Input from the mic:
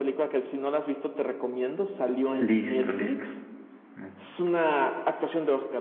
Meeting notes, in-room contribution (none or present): present